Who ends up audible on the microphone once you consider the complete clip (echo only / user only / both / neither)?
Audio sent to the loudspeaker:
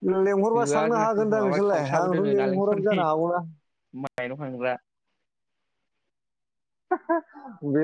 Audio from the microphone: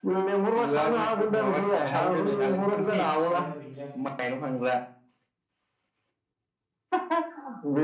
both